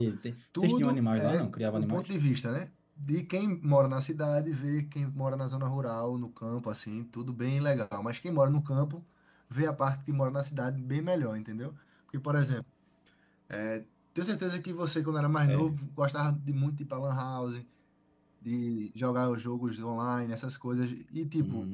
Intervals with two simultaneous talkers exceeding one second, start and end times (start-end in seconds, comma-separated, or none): 0.6-2.1